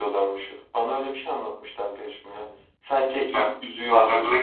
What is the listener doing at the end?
taking over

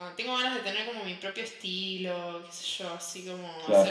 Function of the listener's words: listening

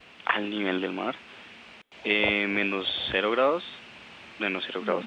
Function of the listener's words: listening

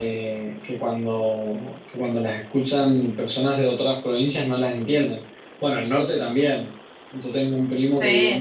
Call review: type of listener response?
listening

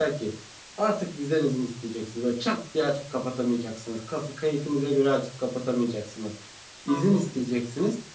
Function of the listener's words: listening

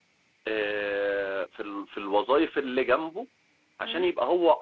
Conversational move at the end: listening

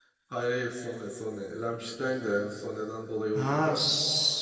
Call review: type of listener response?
taking over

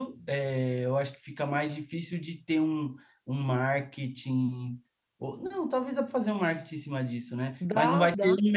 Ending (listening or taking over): listening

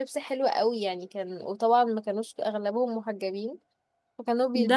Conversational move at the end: taking over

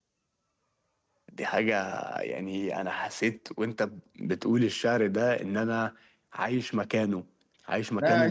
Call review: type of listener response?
taking over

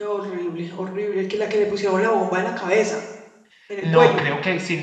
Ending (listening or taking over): taking over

